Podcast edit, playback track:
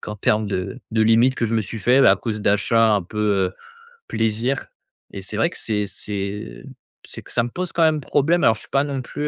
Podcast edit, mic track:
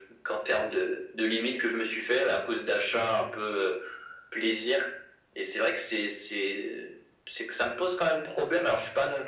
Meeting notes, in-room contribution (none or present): none